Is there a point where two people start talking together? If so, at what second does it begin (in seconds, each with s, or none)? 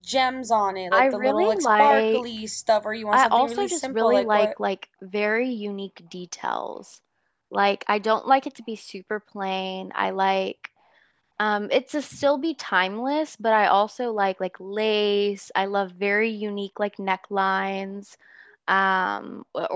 0.9 s